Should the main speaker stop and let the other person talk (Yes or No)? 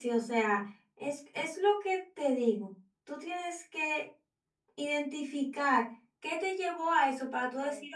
No